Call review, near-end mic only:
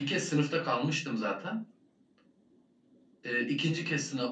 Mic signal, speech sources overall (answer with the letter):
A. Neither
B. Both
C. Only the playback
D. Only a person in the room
D